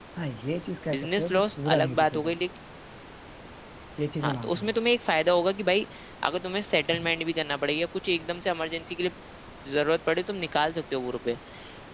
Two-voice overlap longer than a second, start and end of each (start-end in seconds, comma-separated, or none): 1.0-2.3